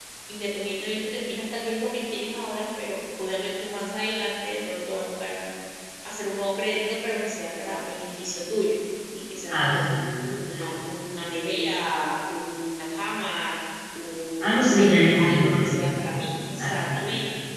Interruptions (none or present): present